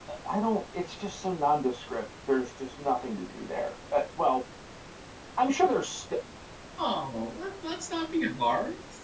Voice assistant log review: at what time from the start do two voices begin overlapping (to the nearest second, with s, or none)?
none